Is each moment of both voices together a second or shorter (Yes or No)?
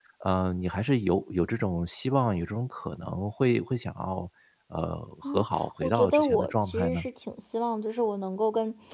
No